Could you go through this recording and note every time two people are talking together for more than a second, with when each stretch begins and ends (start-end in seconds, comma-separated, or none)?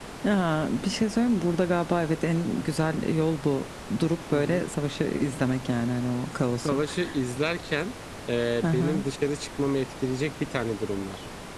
none